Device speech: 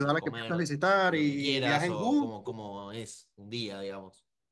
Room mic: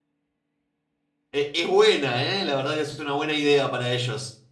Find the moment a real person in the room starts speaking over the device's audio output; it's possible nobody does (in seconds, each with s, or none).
1.3 s